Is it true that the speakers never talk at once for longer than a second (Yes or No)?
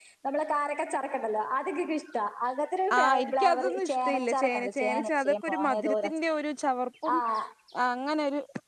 No